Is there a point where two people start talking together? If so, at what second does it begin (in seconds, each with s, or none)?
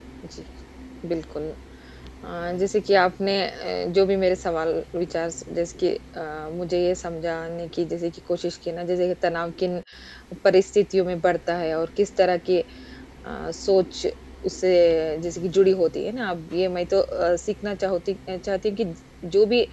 none